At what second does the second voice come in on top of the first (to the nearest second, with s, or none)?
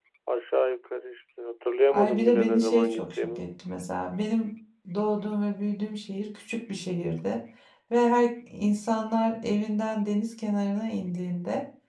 2 s